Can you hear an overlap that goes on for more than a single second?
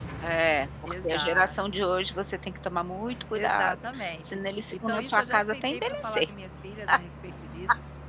Yes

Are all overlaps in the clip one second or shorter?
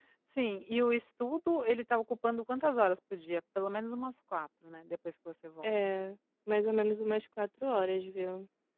Yes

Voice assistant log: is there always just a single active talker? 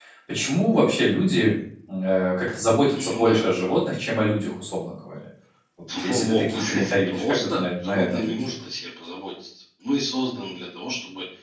No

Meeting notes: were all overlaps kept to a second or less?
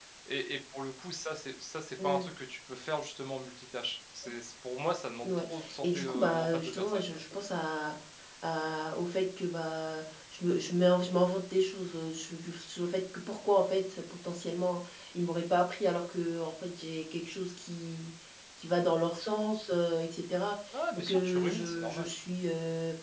No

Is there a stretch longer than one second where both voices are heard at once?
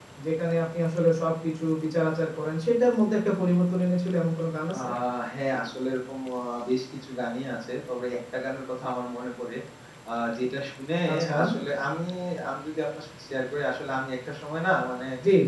No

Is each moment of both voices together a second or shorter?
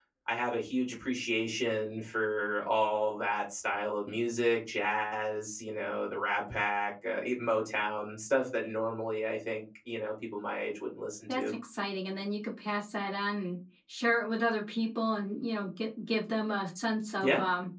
Yes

